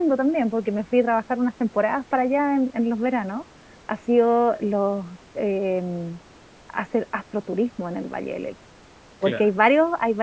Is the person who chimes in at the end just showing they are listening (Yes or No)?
Yes